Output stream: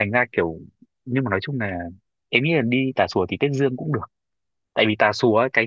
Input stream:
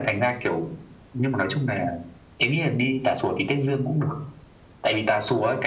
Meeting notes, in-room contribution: none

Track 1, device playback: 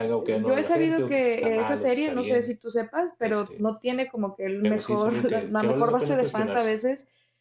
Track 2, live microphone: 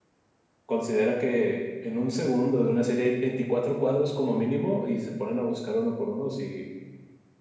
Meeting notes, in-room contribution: present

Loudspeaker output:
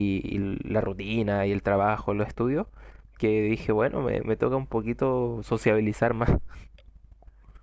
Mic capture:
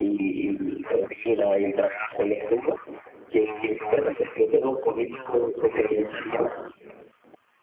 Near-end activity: none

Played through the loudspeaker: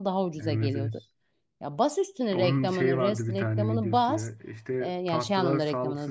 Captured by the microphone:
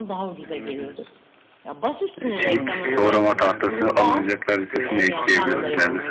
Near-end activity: present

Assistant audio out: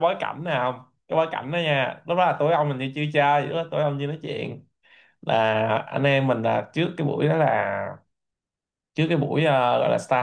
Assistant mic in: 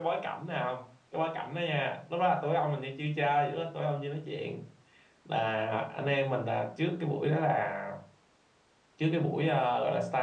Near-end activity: none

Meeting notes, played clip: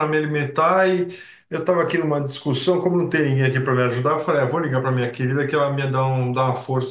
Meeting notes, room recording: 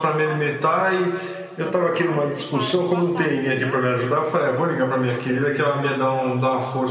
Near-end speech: present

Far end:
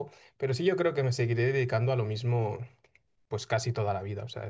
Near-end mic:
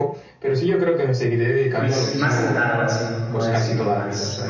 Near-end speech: present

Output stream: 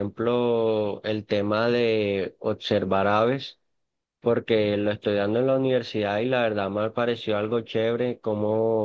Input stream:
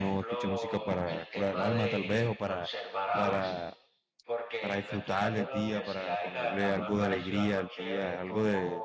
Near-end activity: present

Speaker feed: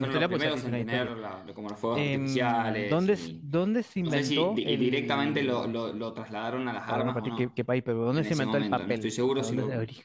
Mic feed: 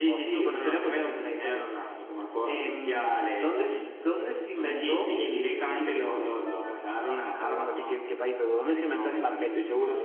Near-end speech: none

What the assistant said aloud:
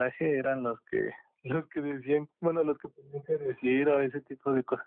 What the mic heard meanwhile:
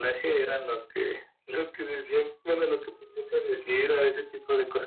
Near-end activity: none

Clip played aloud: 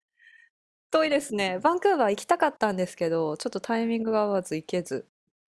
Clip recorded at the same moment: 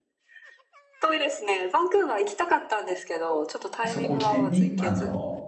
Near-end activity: present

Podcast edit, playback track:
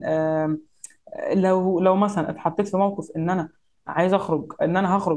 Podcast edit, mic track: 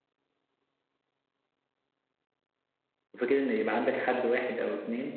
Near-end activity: present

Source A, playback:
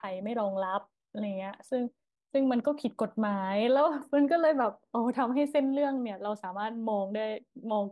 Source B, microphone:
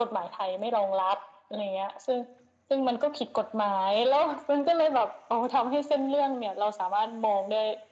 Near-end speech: none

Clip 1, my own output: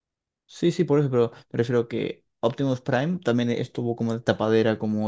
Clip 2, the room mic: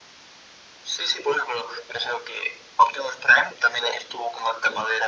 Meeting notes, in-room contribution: none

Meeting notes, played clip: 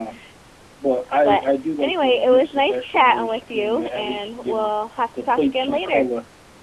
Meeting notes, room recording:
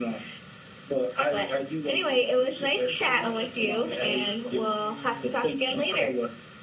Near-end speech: present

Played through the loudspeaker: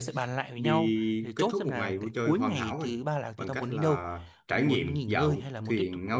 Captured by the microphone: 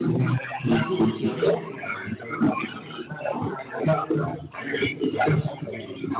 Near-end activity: present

